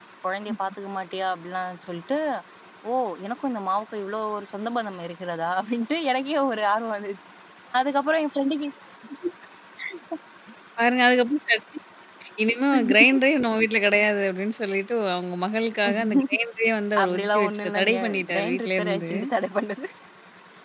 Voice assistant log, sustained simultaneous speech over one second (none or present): present